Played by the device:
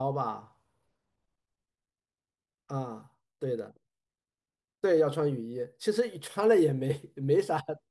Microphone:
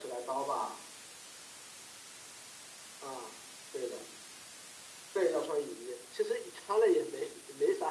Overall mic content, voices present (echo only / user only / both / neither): echo only